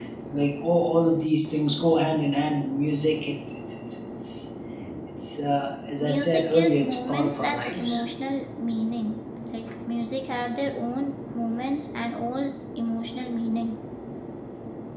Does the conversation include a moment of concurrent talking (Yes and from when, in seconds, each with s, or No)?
Yes, from 6.0 s